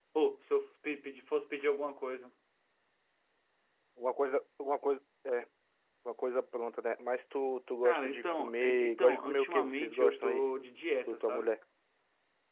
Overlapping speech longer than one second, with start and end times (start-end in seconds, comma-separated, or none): 7.8-10.4